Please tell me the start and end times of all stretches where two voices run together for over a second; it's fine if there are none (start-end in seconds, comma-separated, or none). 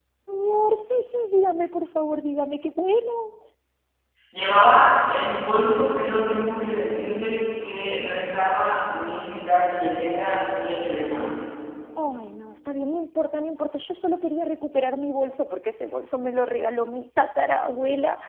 none